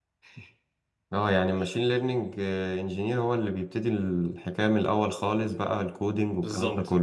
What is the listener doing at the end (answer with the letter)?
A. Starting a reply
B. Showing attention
A